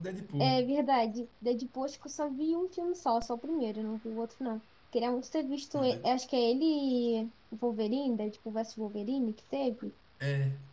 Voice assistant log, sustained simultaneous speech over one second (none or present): none